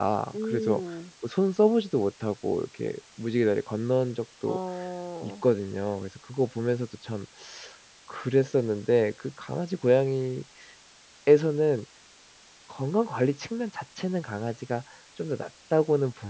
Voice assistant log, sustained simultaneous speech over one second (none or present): none